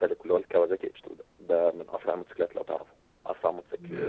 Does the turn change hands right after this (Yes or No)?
No